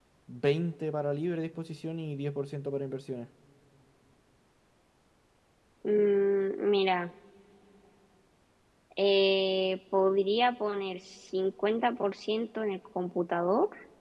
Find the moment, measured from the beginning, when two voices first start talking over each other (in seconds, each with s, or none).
none